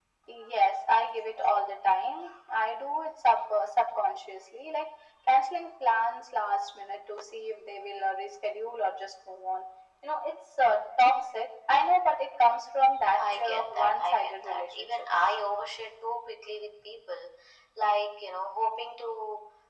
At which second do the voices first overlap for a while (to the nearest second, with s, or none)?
13 s